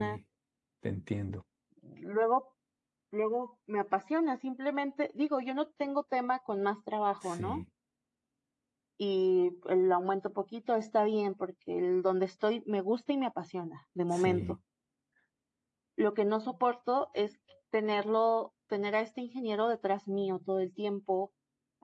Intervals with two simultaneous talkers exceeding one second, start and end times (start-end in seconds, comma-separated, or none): none